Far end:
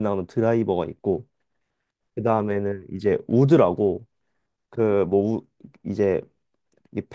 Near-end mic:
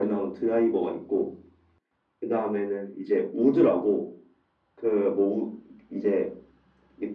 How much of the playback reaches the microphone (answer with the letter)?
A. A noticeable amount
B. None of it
A